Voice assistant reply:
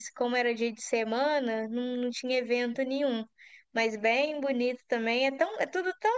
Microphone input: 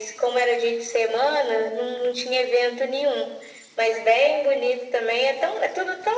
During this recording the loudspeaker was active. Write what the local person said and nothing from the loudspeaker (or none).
none